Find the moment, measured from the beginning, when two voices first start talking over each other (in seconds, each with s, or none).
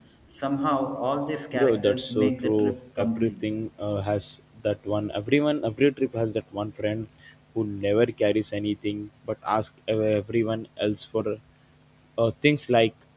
1.5 s